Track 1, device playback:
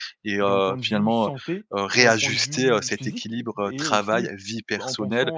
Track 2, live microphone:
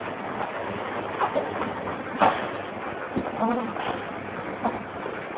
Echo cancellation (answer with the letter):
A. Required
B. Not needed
B